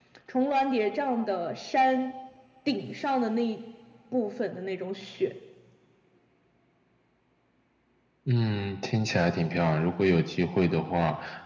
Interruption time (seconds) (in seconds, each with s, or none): none